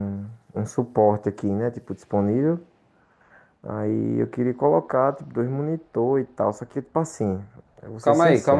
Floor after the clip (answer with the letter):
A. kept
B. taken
B